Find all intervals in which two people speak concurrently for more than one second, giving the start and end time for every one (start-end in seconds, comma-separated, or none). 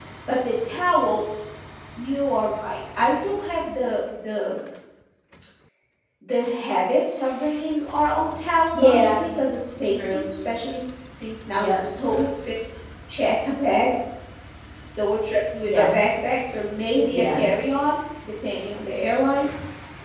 none